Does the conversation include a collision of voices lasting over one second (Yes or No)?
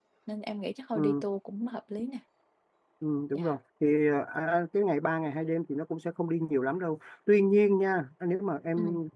No